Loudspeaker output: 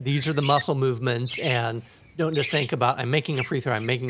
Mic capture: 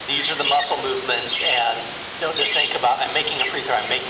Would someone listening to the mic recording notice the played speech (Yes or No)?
Yes